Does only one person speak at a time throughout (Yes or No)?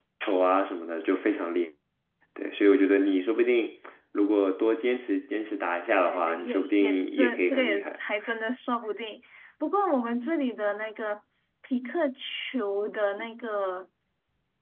No